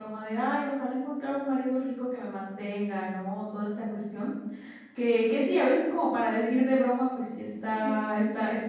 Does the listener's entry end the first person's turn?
No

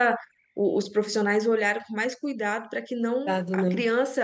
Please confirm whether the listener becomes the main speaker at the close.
No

